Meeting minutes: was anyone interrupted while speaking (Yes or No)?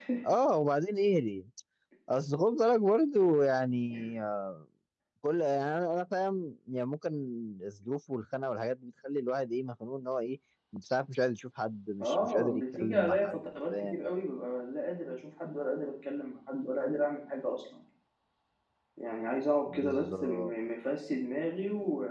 Yes